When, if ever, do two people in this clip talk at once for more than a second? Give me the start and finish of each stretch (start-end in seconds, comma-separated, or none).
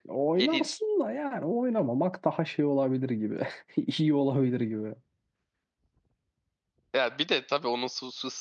none